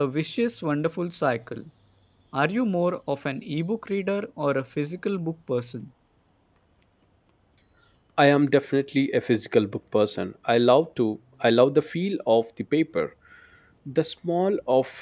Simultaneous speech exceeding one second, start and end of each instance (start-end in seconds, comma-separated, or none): none